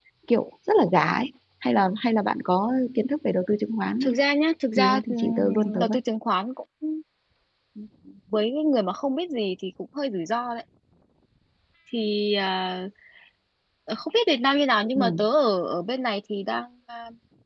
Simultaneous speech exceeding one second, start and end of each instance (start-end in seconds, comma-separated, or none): 4.8-6.0